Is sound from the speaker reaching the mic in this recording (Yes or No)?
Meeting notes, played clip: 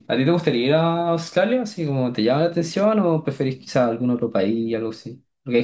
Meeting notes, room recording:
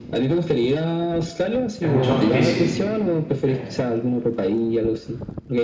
Yes